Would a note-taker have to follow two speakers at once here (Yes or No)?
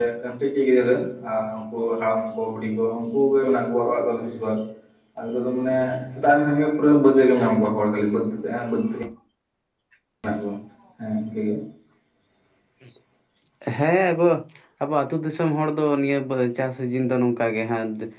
No